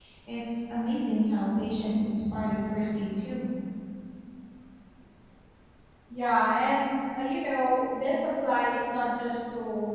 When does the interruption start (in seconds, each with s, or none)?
none